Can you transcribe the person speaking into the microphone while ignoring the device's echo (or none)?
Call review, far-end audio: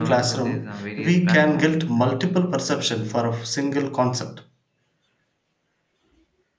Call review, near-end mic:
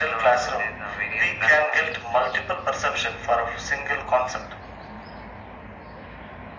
none